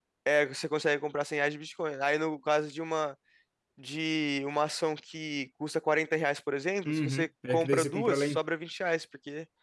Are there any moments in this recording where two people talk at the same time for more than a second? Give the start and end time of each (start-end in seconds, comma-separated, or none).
6.8-8.4